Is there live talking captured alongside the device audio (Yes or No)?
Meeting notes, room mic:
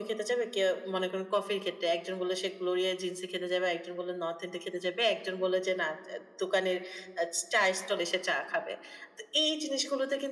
No